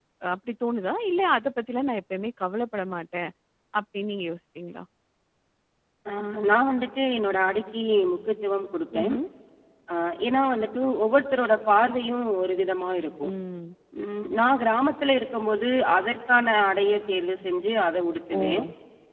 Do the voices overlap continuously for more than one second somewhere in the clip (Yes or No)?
No